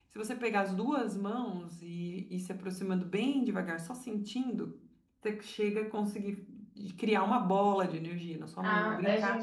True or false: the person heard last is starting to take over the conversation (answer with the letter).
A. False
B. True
B